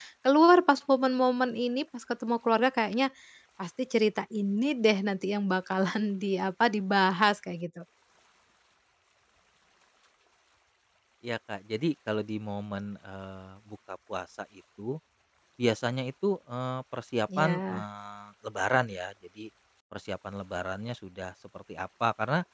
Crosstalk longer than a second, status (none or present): none